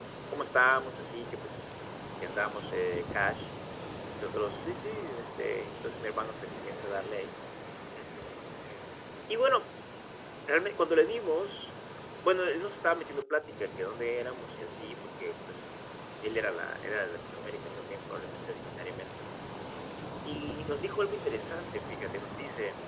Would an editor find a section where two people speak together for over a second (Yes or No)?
No